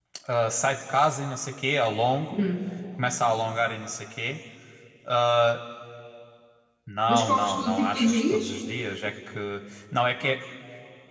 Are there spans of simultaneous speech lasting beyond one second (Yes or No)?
Yes